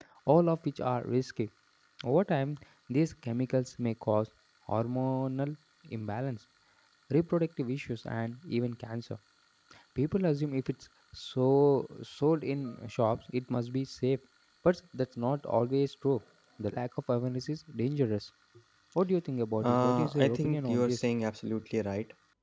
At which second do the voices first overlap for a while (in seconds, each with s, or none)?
19.6 s